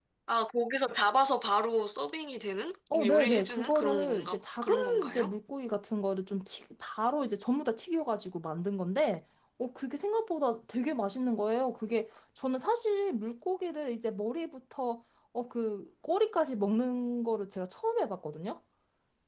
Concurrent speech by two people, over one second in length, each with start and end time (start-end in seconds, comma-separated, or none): 2.9-5.3